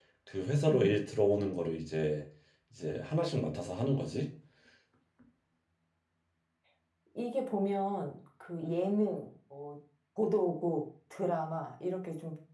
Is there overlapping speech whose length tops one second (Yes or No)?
No